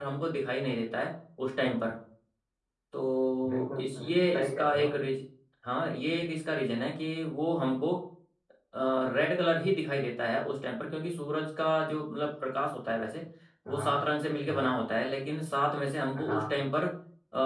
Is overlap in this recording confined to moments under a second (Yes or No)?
No